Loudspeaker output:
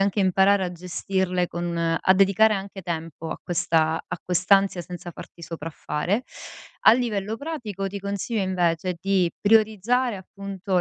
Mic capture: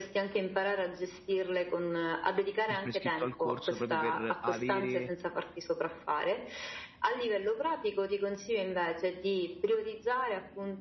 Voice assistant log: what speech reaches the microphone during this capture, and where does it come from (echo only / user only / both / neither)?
both